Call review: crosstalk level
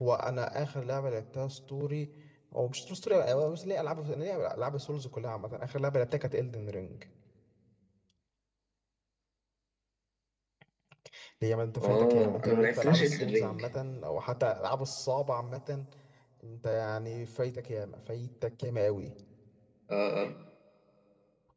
present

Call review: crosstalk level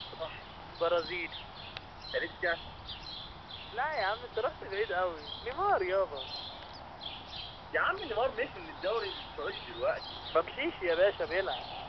none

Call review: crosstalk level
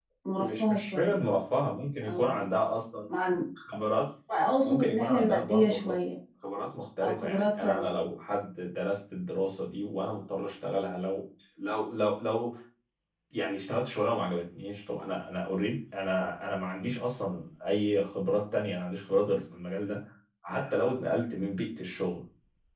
present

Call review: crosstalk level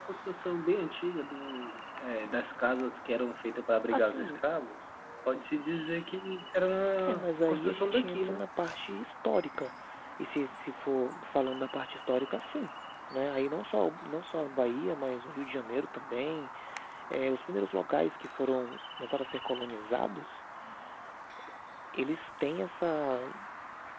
present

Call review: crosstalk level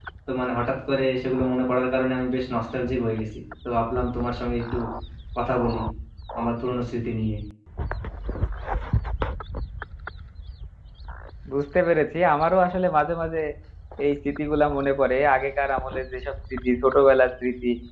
none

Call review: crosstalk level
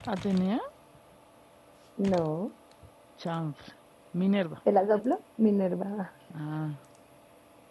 none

